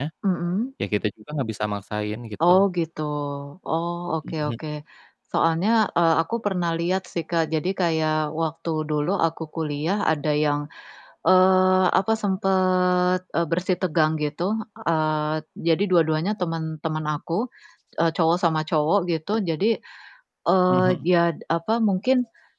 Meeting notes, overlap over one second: none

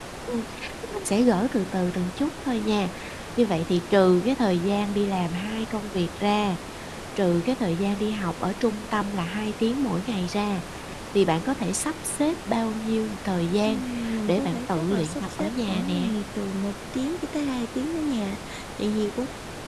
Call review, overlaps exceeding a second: present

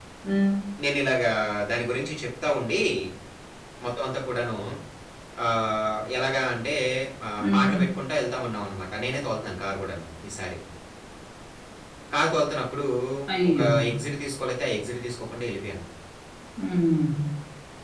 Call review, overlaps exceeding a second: none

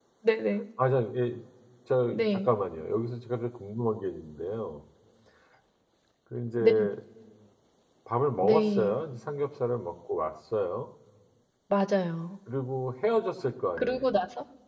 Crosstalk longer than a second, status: none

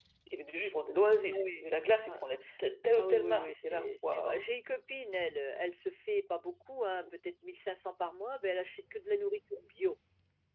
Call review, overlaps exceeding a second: present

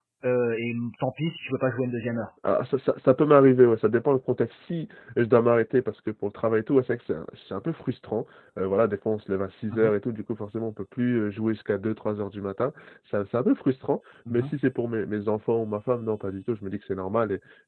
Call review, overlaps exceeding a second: none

